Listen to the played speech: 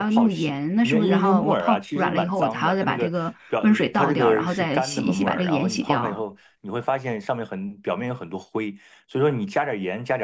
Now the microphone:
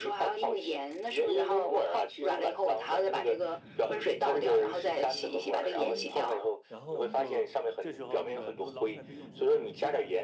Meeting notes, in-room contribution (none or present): present